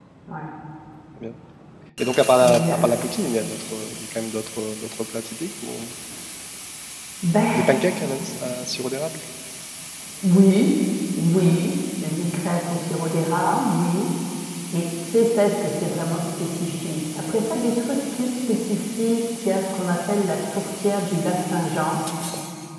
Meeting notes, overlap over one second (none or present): none